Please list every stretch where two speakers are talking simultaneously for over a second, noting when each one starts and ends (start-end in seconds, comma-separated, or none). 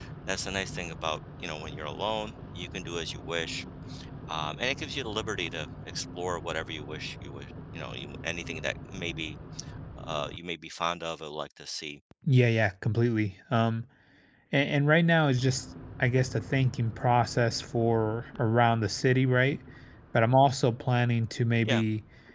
none